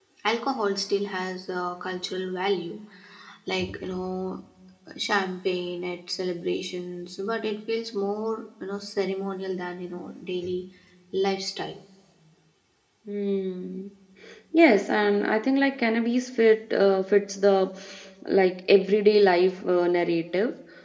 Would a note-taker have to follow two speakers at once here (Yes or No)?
No